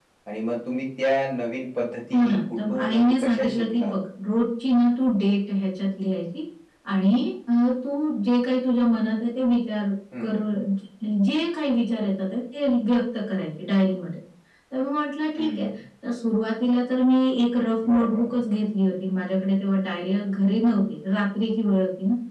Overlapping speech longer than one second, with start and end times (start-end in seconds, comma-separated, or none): 2.1-4.0